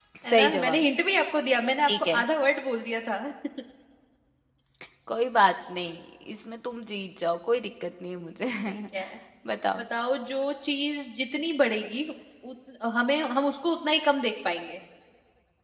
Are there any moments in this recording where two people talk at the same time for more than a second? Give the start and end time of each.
none

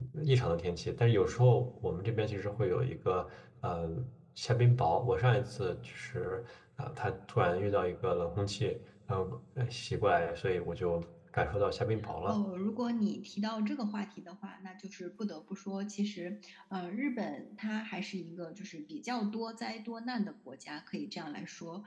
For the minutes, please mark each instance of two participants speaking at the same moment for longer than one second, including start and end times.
none

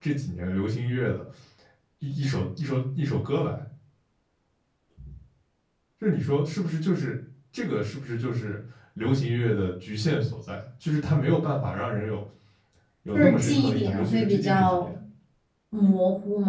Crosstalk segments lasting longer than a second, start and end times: 13.1-14.9

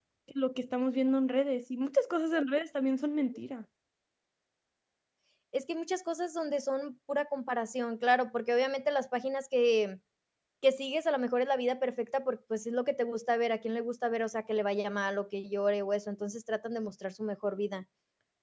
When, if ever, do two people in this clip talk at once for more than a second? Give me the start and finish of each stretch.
none

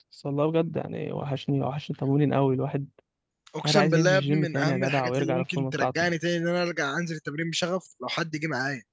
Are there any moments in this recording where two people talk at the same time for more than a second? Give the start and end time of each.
3.6-6.1

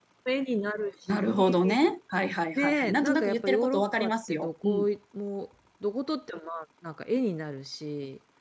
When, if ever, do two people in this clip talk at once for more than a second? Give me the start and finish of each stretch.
2.6-4.9

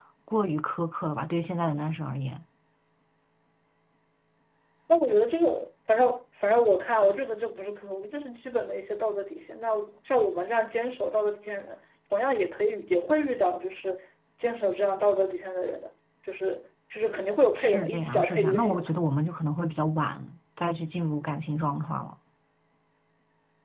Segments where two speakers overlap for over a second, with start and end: 17.6-18.9

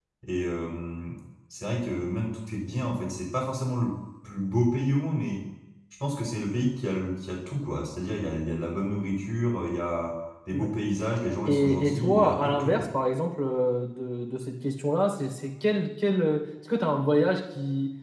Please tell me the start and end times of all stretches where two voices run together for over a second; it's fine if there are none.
11.5-12.9

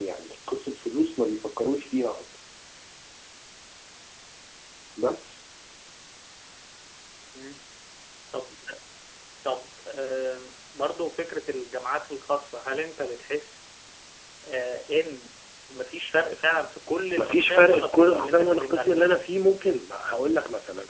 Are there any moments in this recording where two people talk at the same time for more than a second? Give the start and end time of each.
17.2-19.1

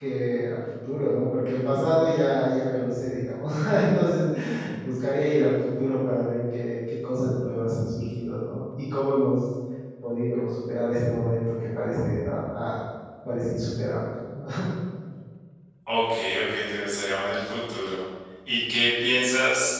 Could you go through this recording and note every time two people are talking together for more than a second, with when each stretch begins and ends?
none

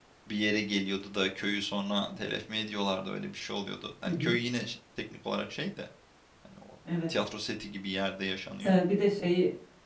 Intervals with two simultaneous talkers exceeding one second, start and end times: none

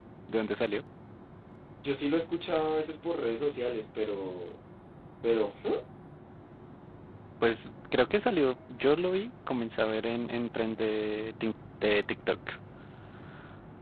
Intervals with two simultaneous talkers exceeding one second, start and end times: none

